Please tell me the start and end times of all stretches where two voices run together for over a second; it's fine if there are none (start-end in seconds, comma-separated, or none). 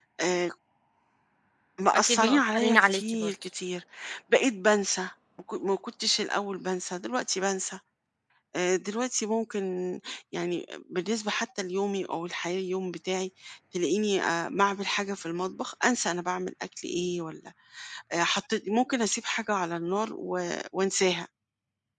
1.9-3.3